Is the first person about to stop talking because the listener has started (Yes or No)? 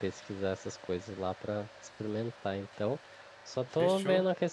No